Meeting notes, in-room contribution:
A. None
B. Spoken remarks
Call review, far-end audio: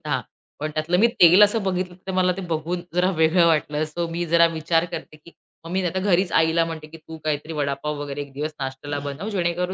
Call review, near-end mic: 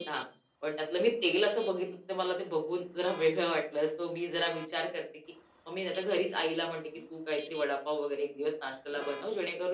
A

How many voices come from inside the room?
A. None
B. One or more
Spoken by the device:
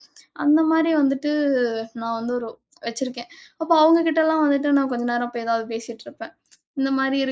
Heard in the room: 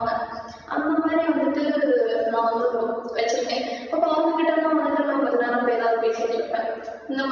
A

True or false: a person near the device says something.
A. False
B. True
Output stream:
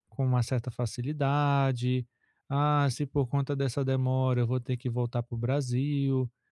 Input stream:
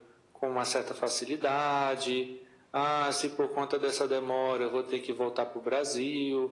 A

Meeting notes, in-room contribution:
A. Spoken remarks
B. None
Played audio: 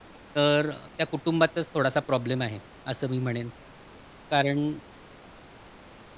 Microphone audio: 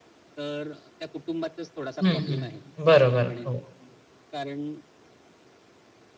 A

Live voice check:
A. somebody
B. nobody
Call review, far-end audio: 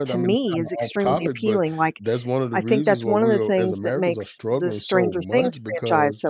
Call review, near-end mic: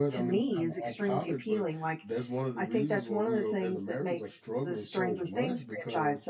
B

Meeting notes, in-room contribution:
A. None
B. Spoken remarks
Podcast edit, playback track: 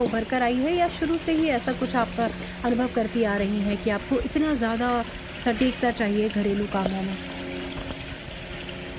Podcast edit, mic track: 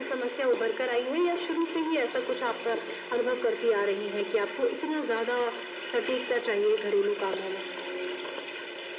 A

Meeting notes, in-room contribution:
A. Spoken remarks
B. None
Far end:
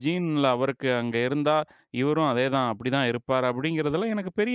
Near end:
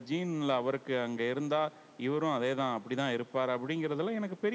B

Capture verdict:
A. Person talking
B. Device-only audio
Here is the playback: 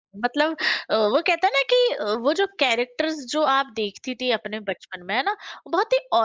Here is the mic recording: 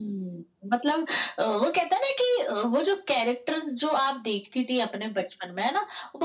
B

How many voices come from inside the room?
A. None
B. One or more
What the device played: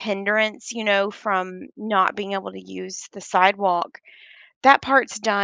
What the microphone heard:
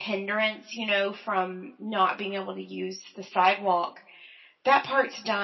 A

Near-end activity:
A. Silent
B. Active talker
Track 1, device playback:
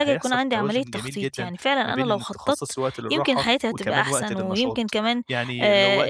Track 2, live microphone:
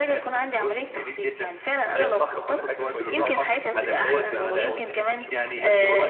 B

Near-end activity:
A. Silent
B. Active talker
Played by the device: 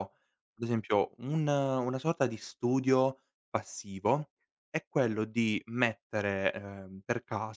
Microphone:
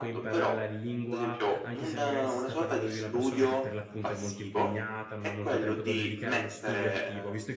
B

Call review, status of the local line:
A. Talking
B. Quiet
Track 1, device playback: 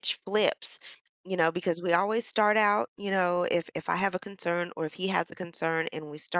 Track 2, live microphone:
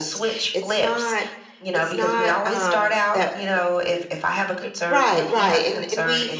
A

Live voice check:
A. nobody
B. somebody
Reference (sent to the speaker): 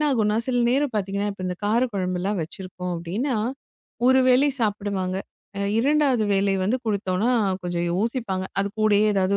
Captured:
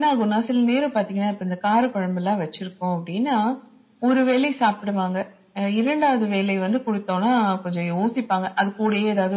A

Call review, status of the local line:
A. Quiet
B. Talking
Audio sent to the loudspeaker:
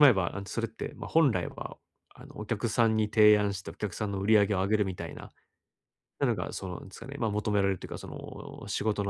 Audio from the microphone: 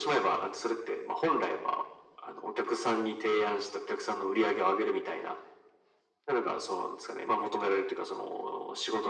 A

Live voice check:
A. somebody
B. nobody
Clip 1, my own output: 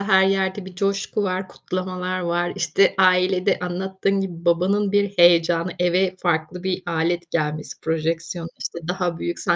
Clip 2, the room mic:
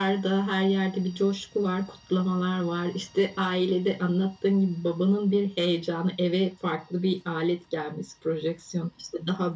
B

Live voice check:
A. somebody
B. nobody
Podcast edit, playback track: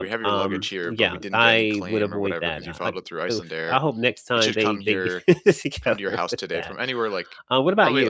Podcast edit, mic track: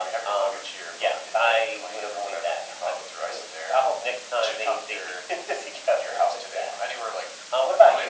B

